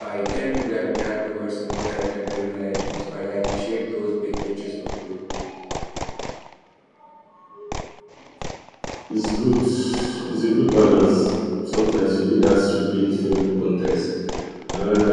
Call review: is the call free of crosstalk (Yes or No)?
Yes